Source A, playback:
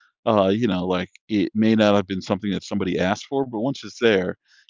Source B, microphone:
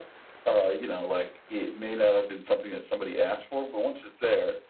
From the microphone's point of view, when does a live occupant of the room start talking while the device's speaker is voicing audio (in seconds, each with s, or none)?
none